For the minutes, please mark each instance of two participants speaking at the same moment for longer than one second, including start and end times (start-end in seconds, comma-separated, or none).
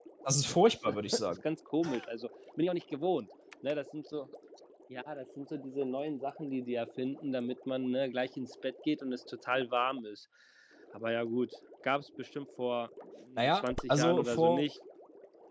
13.4-14.6